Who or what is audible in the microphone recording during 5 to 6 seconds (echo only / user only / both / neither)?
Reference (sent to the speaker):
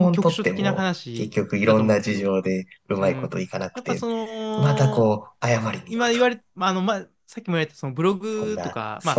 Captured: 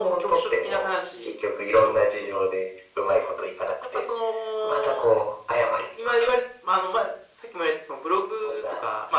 echo only